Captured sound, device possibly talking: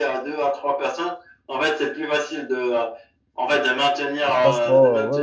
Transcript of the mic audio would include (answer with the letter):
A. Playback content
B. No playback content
A